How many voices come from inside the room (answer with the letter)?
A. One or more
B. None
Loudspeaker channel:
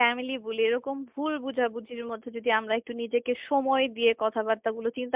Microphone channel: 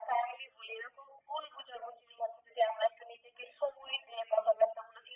B